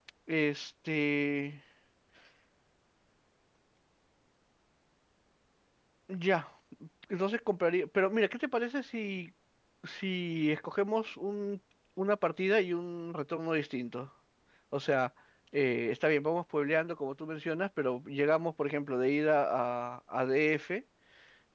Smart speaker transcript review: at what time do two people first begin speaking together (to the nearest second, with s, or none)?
none